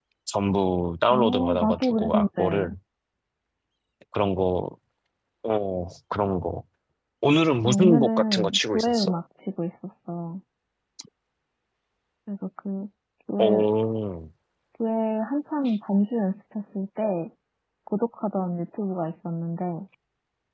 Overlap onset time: 1.1 s

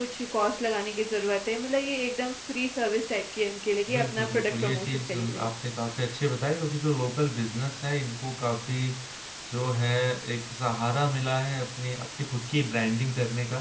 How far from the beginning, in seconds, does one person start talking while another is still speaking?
3.9 s

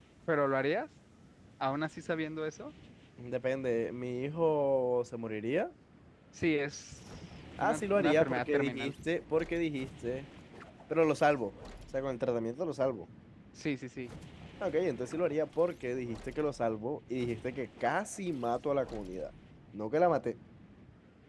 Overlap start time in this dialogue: 7.6 s

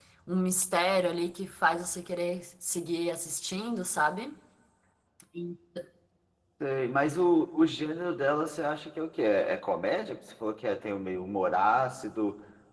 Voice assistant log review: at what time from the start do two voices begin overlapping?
none

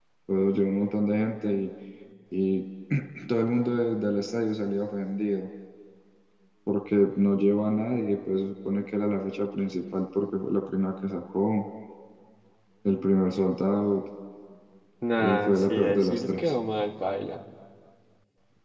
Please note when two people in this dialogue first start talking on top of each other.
15.2 s

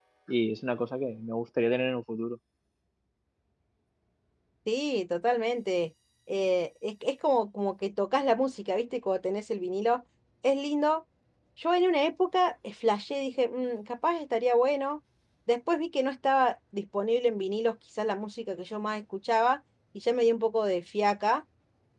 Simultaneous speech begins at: none

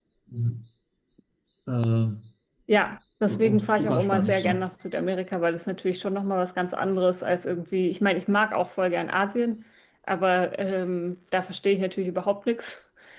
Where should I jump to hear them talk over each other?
3.3 s

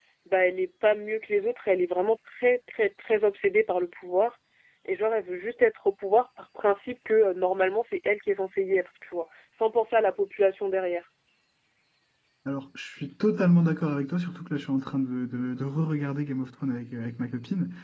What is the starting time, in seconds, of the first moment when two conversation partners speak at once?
none

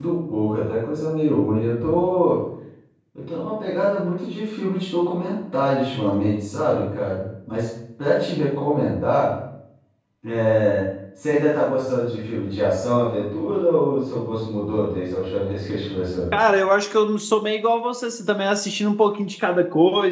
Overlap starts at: none

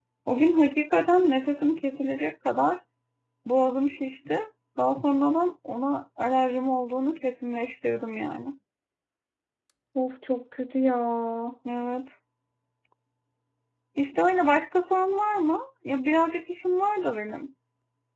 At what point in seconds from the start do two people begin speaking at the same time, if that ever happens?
none

